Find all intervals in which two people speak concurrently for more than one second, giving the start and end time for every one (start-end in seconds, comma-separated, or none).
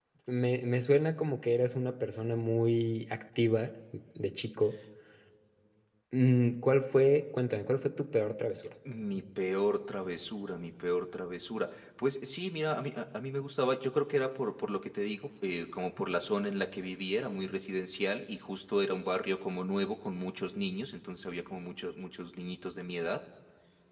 none